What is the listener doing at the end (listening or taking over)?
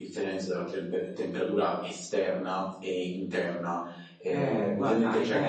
taking over